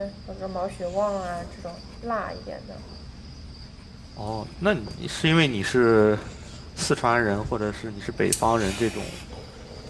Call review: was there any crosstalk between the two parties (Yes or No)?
No